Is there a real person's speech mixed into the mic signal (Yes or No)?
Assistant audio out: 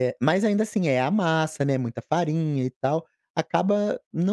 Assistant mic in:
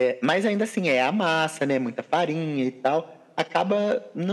No